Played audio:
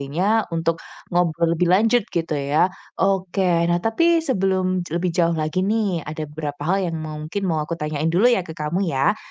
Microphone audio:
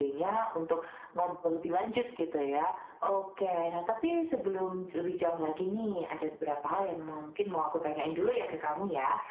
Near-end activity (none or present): none